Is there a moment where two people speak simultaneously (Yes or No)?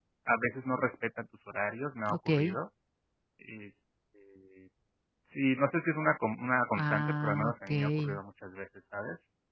Yes